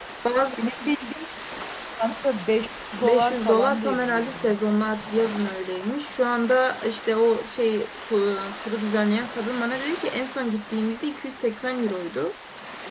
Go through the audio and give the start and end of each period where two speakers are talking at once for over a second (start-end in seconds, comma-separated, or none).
3.0-4.6